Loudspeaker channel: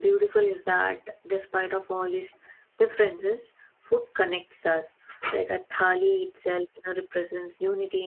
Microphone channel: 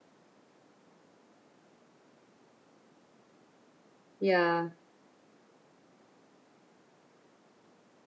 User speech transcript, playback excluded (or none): Yeah.